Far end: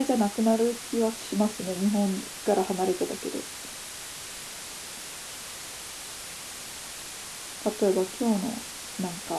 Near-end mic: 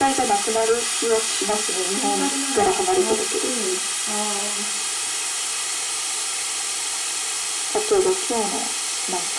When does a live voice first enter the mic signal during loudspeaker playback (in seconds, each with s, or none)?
1.9 s